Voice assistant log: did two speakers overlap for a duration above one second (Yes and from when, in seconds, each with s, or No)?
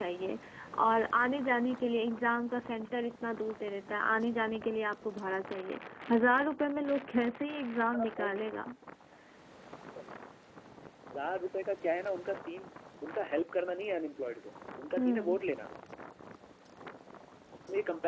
No